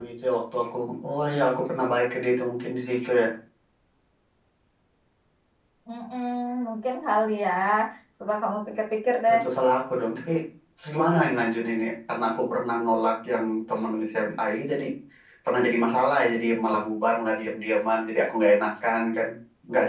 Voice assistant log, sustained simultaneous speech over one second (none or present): none